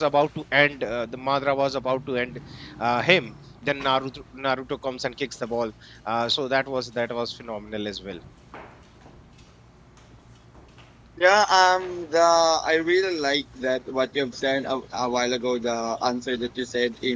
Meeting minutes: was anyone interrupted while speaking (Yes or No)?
No